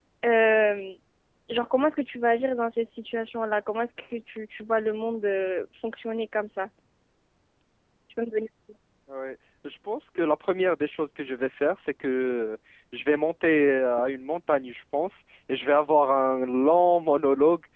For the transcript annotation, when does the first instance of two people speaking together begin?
none

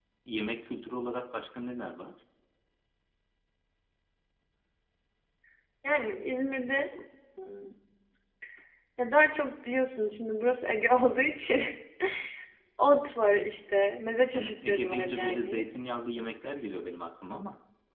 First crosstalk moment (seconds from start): 14.3 s

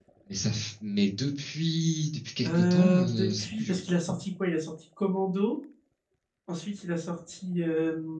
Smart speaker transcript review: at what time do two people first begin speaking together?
2.4 s

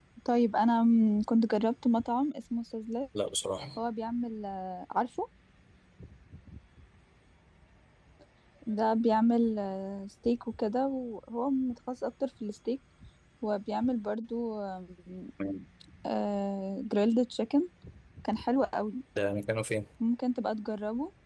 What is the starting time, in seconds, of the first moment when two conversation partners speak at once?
none

